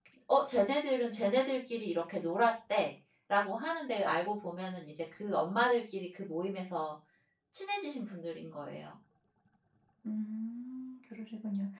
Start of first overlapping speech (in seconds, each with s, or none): none